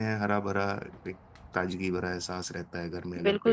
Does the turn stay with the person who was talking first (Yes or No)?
No